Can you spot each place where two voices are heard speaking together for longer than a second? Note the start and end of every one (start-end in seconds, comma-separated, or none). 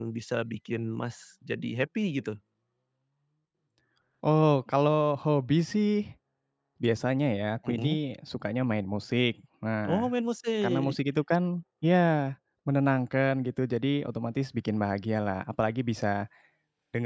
none